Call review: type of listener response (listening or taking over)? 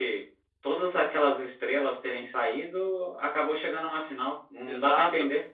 taking over